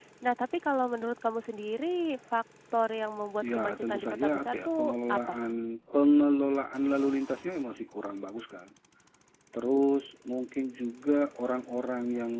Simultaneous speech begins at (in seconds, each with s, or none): 3.4 s